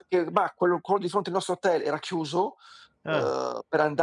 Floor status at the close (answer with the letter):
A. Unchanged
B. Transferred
A